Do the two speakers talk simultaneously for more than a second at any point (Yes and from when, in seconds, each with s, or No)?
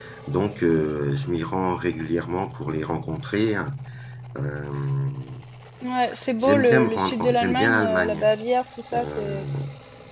Yes, from 6.4 s